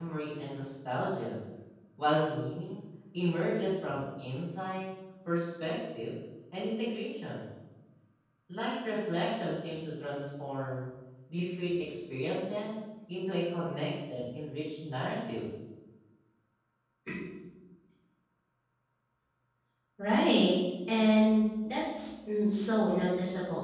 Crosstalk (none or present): none